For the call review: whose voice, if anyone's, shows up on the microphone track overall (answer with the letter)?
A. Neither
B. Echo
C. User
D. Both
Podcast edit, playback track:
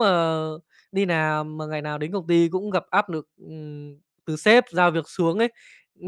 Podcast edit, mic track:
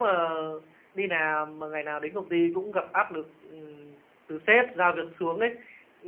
B